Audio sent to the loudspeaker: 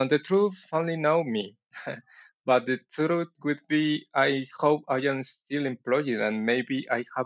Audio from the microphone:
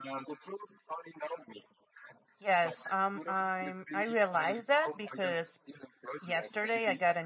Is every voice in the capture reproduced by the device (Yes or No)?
No